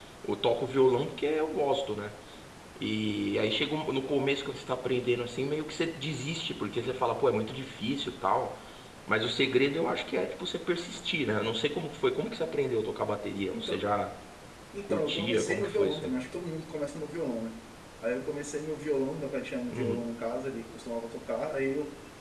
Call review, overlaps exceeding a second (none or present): present